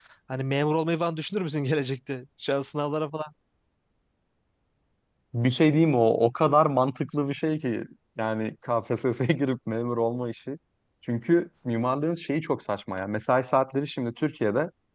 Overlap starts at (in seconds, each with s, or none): none